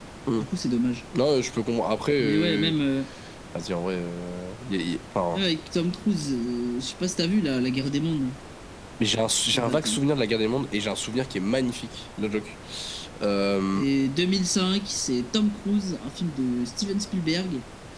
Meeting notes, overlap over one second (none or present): none